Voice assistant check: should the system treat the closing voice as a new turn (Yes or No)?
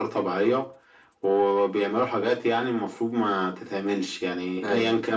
No